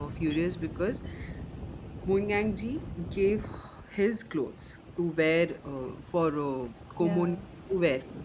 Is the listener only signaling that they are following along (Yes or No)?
Yes